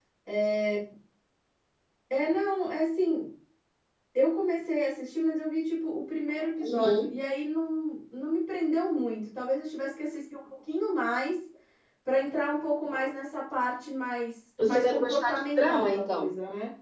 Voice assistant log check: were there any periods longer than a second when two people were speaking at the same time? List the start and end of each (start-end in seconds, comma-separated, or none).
14.6-16.3